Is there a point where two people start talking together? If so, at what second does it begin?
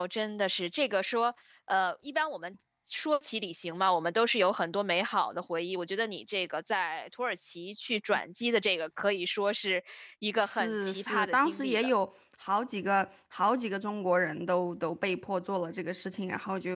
10.4 s

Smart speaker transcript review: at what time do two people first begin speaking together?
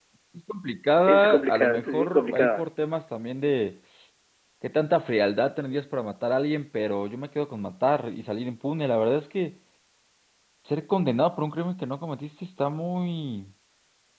1.1 s

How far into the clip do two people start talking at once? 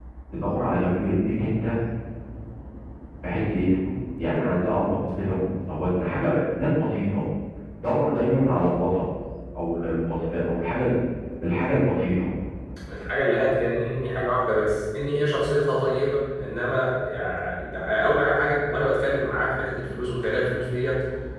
none

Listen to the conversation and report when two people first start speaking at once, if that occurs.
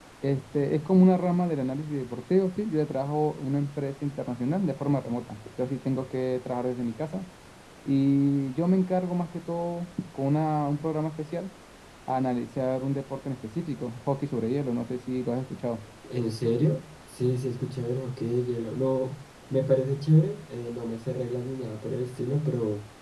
none

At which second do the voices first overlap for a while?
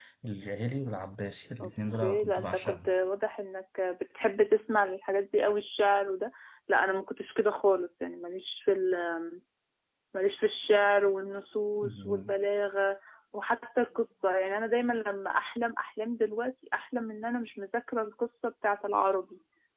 1.6 s

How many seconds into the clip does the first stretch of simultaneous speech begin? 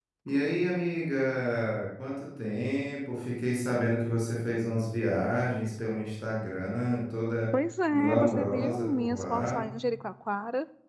7.9 s

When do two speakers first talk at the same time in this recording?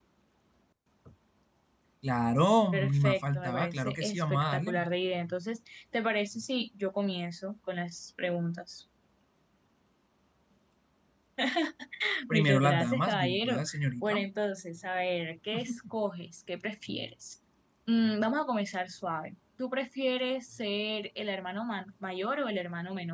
2.7 s

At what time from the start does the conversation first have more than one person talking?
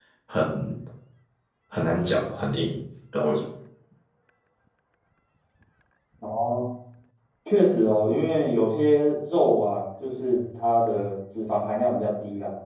none

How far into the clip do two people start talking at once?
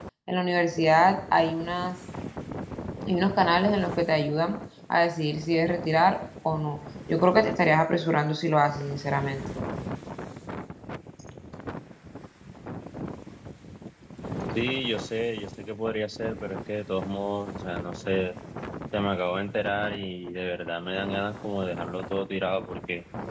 none

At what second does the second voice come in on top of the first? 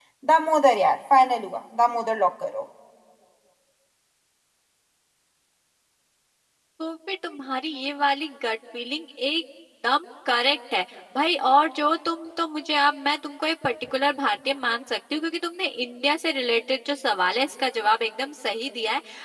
none

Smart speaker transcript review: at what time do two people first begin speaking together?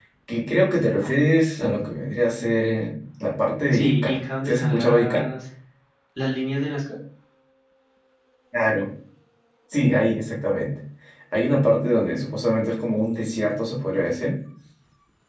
3.7 s

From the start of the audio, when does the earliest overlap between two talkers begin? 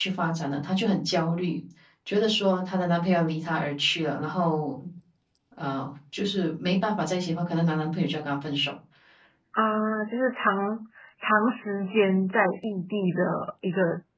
none

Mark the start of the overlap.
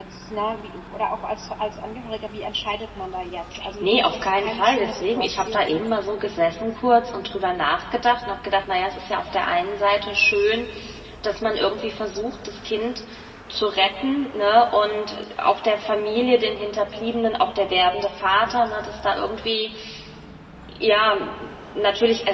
3.8 s

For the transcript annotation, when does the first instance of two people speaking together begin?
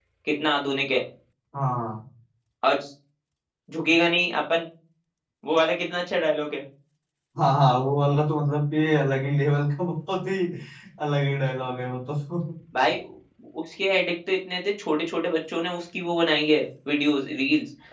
none

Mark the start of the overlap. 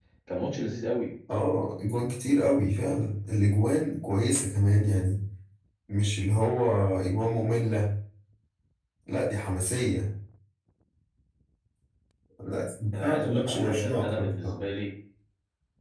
12.9 s

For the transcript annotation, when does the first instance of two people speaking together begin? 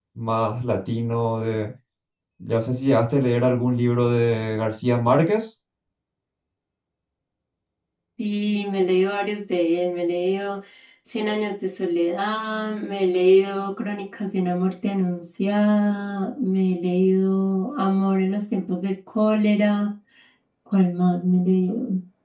none

